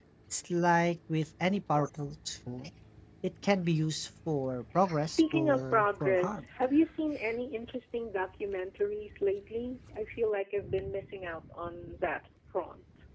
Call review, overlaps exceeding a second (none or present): present